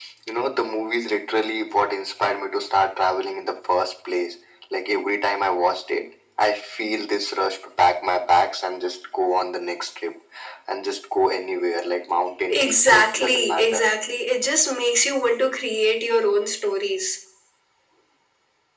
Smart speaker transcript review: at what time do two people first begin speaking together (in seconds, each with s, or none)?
12.5 s